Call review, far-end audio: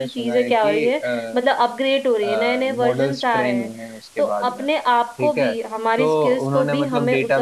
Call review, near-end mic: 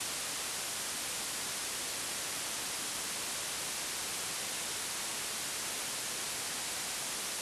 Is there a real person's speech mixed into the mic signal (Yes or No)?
No